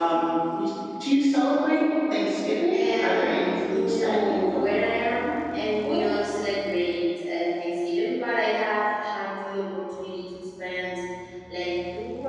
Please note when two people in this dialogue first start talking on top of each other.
2.8 s

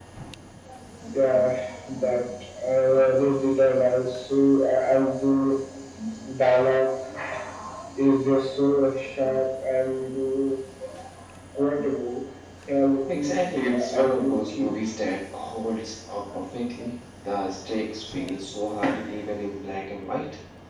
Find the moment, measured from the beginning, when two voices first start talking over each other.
13.1 s

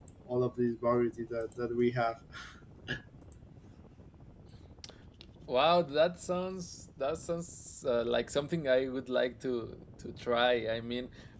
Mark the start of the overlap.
none

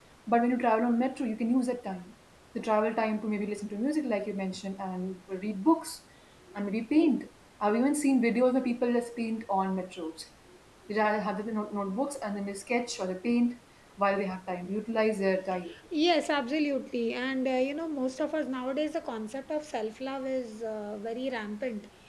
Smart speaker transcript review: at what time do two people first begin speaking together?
none

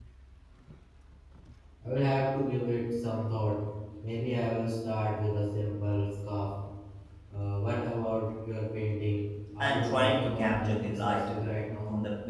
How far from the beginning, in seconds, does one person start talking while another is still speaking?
9.6 s

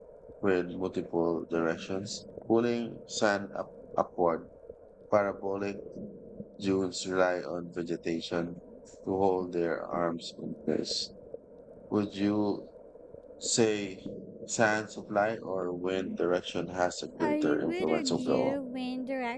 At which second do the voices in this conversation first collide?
17.2 s

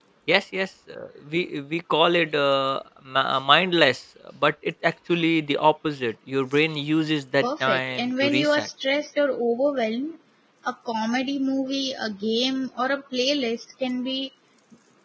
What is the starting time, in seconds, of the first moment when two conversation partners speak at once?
7.4 s

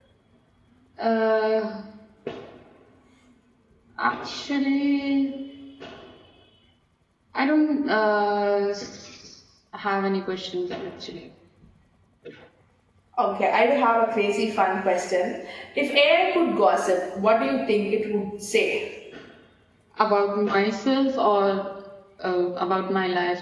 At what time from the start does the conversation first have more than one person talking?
none

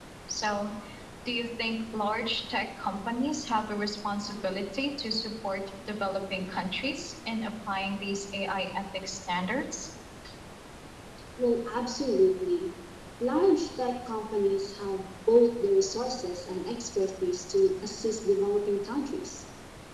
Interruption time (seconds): none

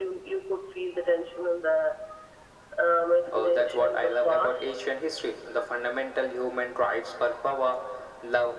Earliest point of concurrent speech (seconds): 3.3 s

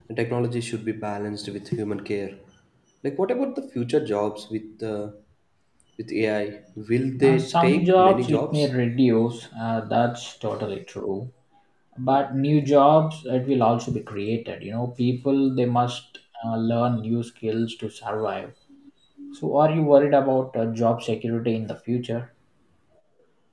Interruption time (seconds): 7.2 s

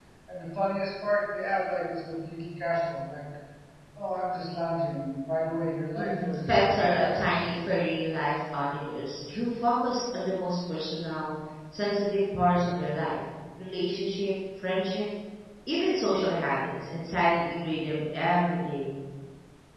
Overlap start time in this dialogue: 6.0 s

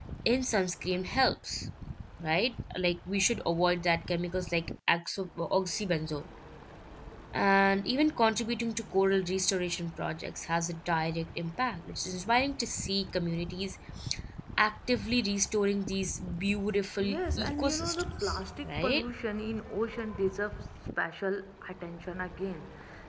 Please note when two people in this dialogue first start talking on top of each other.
17.0 s

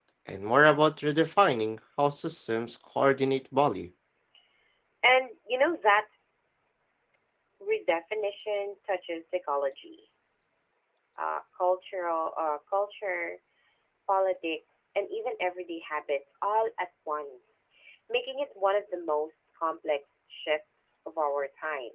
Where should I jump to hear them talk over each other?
none

